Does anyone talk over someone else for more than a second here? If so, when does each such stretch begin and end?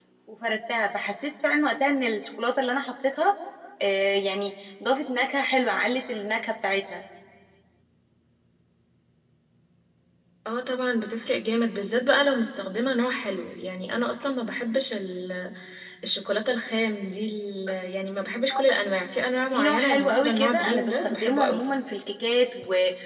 19.5-21.6

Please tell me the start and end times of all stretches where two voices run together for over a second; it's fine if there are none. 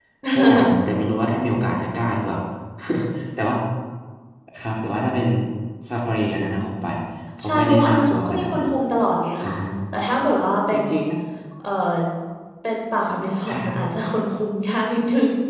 7.4-8.7

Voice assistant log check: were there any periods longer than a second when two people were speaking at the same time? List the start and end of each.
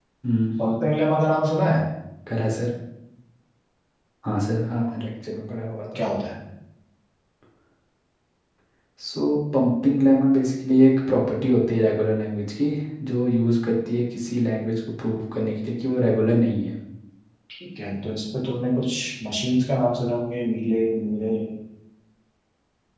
none

